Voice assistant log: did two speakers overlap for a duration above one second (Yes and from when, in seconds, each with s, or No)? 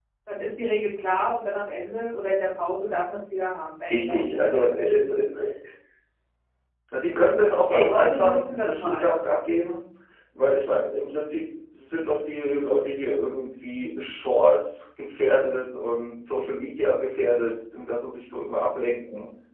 Yes, from 3.9 s